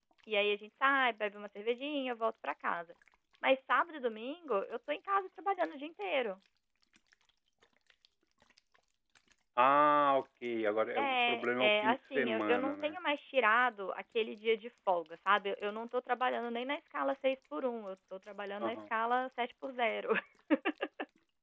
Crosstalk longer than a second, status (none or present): present